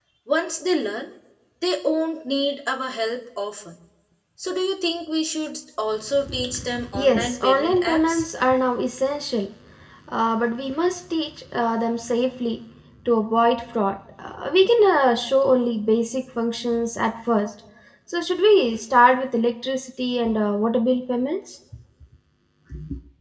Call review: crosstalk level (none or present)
present